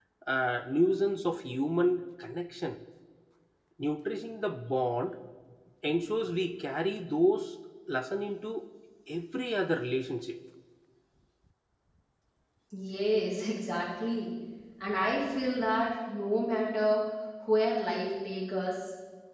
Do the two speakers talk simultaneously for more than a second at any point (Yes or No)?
No